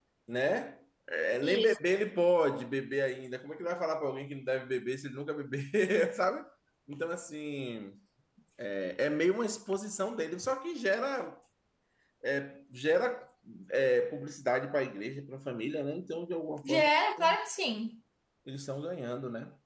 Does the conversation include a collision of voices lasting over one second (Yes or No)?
No